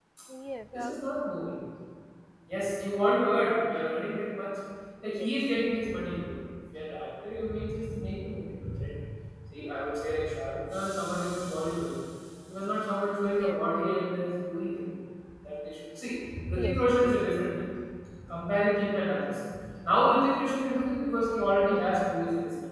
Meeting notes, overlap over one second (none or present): none